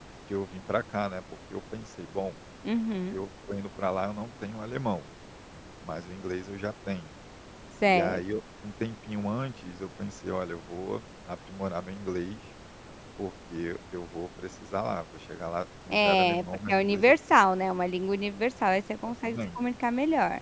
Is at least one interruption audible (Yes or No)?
Yes